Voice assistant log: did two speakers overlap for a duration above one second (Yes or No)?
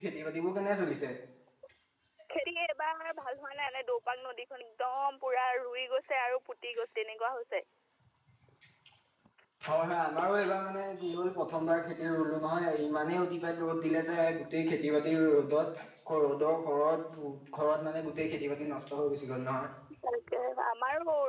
No